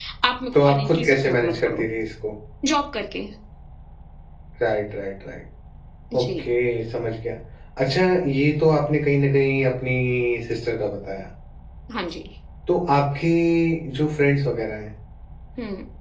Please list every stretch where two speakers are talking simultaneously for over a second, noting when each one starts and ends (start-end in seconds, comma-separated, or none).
0.5-1.8